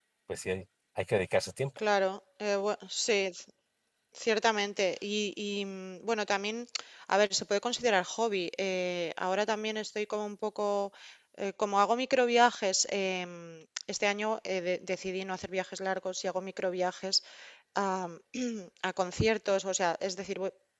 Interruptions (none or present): none